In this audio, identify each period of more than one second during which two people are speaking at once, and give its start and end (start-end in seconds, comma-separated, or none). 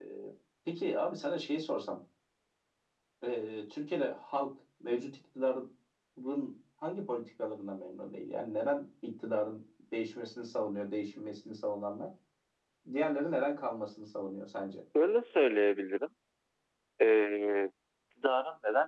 none